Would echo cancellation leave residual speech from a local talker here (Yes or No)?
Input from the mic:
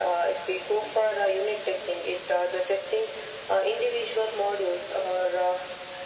No